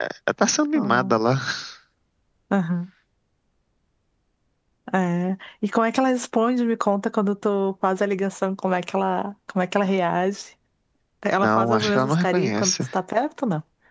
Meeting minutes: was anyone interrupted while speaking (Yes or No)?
Yes